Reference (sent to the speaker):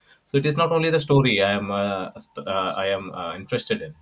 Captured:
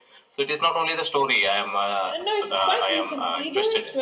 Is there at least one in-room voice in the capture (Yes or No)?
Yes